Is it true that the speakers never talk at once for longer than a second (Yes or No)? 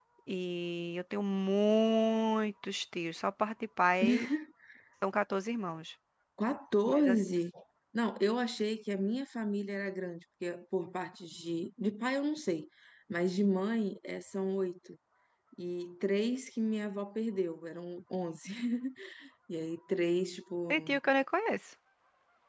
Yes